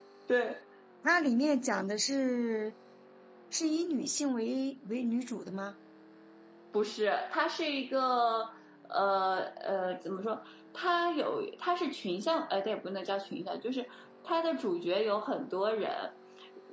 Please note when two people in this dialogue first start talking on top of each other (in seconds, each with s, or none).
none